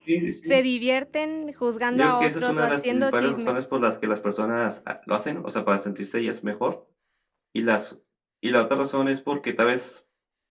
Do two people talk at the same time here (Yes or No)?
Yes